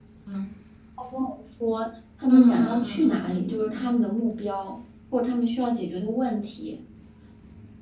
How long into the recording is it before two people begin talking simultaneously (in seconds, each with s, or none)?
2.3 s